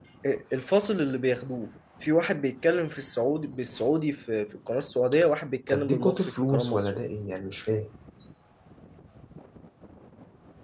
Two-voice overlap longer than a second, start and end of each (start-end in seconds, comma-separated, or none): 5.7-7.0